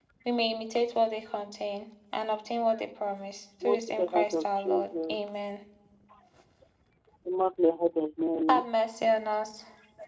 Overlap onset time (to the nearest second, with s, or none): 4 s